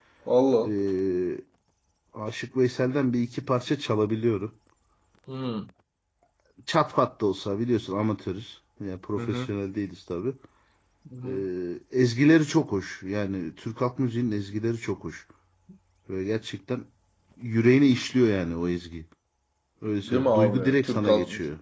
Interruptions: present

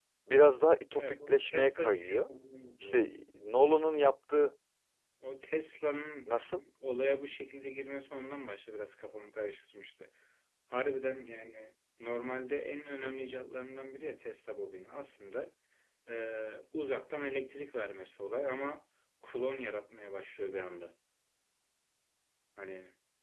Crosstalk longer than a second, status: present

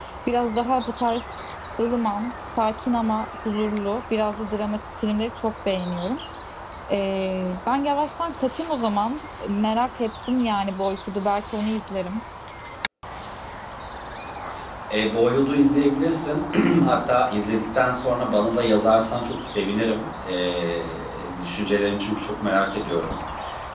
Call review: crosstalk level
none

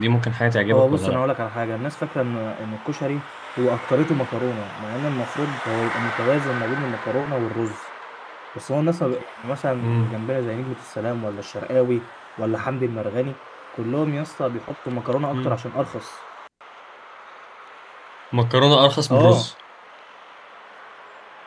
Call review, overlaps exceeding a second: none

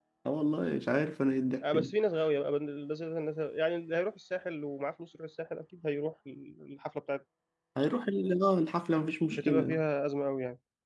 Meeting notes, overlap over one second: none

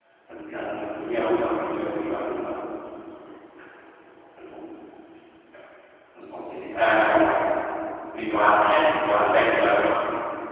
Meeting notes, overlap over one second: present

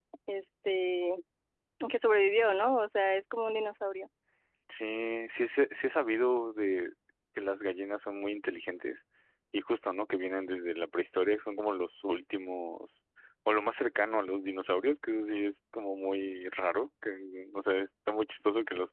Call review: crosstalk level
none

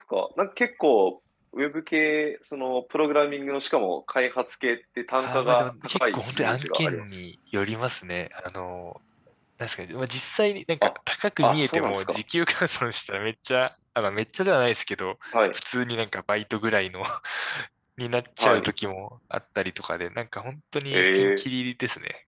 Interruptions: present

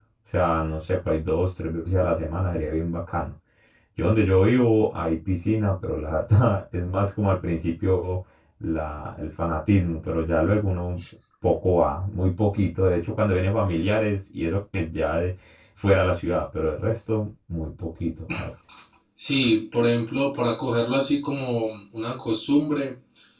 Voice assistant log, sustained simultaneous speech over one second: none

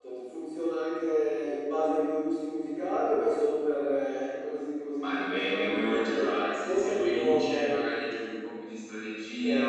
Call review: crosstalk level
present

